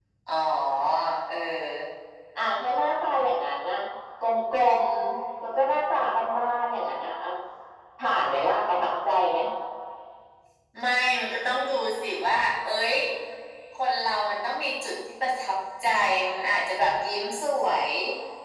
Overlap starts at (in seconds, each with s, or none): none